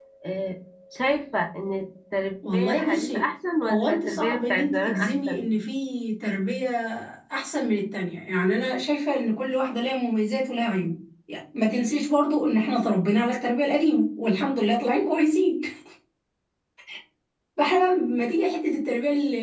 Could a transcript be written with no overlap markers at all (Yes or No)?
No